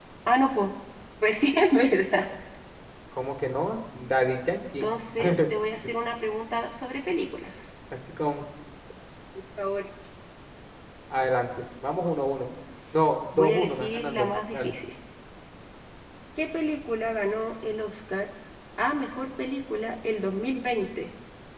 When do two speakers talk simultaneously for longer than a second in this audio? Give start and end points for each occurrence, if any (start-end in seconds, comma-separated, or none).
13.4-14.7